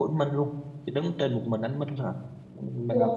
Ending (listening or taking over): listening